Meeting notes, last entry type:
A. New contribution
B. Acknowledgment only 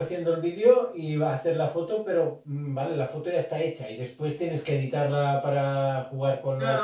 A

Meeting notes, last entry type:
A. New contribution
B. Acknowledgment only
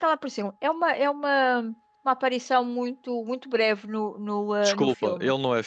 A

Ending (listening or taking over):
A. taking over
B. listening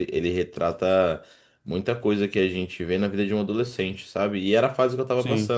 B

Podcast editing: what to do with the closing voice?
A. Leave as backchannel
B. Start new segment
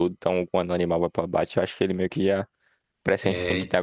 A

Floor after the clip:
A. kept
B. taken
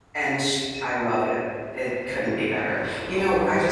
A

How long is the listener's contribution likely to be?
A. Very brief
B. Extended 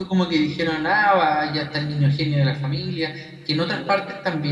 A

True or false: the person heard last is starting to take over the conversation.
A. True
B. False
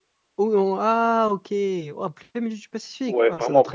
A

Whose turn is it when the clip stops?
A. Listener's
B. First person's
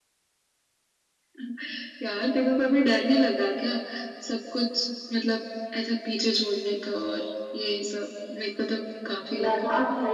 A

